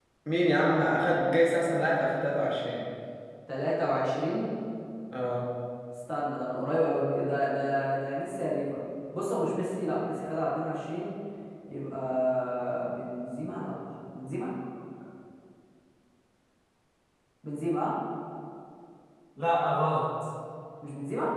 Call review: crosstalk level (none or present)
none